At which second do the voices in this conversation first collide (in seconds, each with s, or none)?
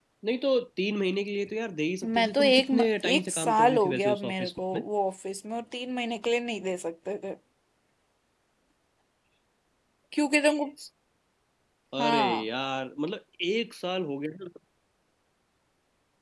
2.0 s